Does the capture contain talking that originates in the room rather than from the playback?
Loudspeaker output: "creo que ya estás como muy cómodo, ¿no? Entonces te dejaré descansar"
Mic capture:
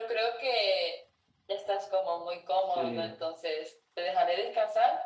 Yes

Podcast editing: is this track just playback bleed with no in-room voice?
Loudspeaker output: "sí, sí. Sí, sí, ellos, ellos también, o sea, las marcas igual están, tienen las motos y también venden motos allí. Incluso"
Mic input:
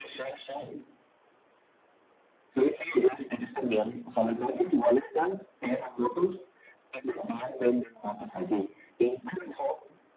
Yes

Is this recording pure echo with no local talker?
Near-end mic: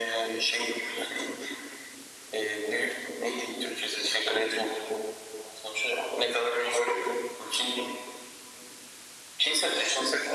Yes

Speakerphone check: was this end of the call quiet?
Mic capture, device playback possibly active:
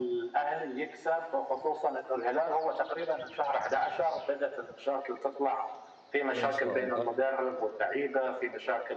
No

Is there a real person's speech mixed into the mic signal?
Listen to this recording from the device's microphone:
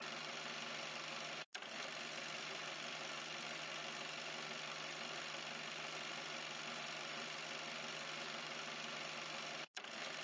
No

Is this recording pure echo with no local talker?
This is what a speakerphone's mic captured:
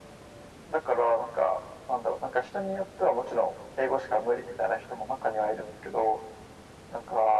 Yes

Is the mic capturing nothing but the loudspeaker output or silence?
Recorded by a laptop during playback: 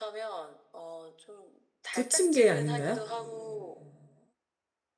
No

